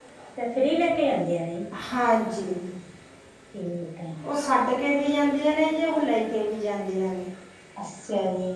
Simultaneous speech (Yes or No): No